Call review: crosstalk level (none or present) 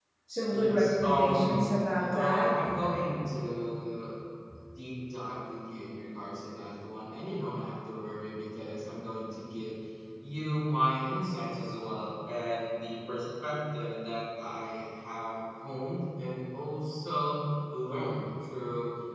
present